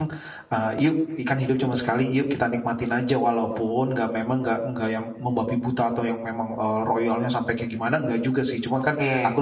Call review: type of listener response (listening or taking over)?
listening